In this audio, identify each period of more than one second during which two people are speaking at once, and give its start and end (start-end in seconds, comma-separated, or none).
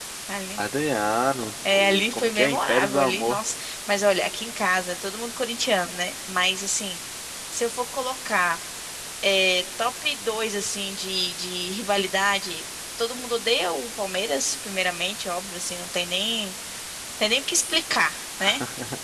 1.7-3.4